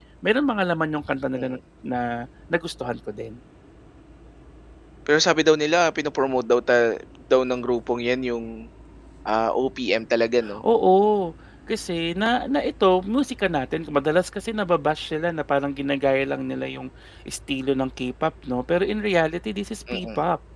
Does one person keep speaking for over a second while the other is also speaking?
No

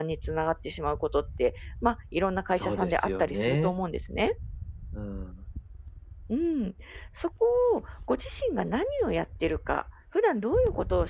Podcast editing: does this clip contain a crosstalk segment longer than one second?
Yes, from 2.5 s

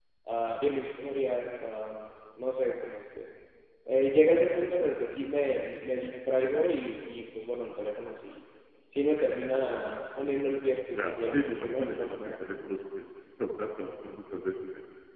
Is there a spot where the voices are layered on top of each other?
Yes, from 10.9 s

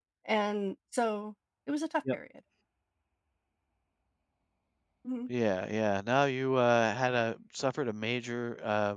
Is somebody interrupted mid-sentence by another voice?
No

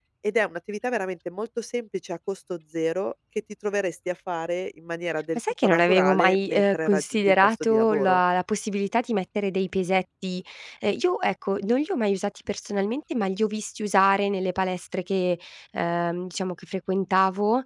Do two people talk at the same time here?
Yes, from 5.4 s

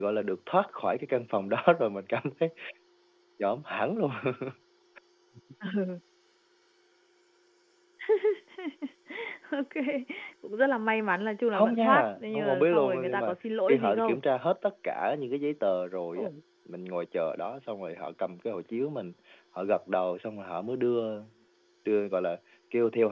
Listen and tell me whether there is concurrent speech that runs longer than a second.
Yes, from 11.5 s

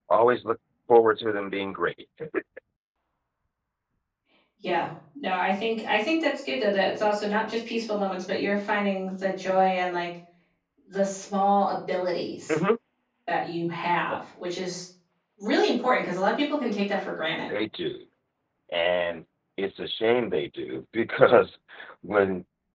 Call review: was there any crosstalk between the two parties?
No

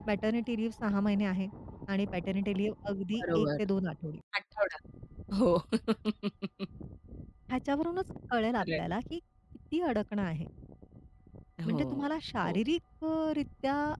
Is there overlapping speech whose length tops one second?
No

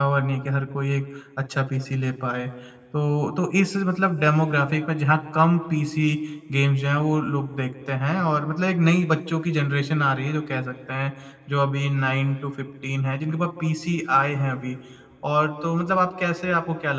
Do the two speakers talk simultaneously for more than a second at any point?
No

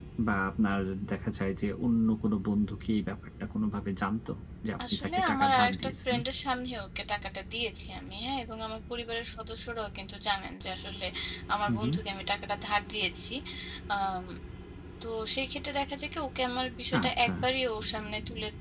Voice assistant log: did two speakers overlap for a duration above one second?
Yes, from 4.9 s

